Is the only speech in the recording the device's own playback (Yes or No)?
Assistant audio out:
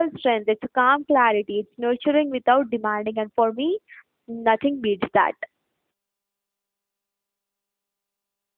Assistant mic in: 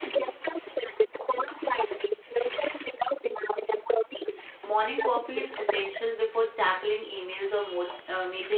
No